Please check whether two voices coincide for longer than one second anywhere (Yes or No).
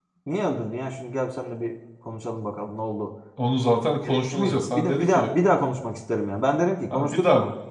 Yes